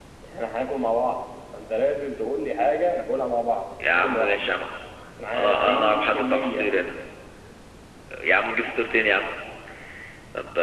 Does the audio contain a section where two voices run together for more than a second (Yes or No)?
Yes